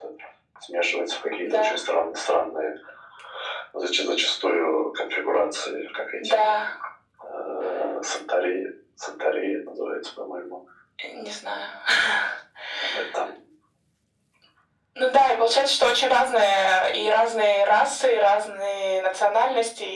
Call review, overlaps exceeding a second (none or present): none